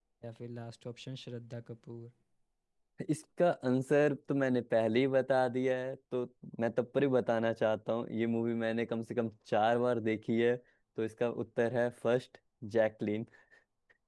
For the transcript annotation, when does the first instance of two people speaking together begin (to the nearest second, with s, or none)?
none